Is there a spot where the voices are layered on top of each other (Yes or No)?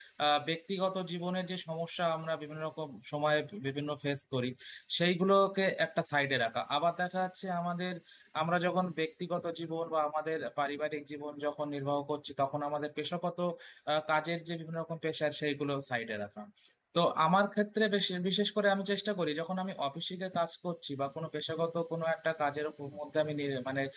No